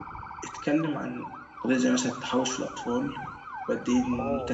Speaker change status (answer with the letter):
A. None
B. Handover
A